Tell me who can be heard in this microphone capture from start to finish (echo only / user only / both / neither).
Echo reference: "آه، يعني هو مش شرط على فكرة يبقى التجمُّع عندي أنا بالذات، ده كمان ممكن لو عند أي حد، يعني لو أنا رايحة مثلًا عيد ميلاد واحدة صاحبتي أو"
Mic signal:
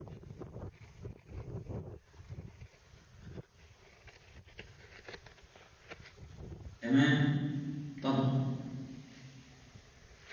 user only